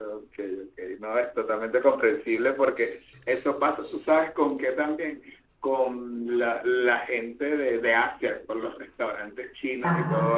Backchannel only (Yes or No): Yes